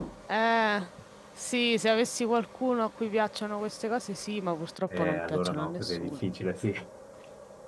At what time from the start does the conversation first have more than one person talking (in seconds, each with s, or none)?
4.9 s